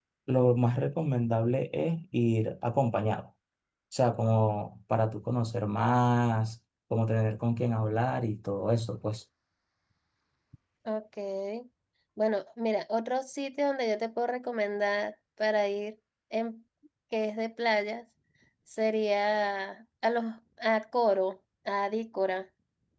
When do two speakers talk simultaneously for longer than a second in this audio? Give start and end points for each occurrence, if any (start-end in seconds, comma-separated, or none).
none